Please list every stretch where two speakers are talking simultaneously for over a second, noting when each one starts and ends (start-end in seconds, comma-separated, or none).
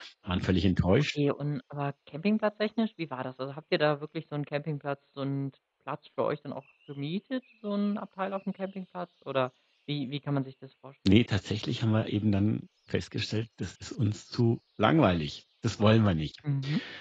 none